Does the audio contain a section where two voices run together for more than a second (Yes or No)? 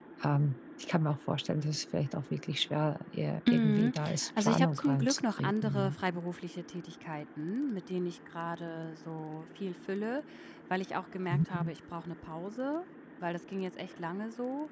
Yes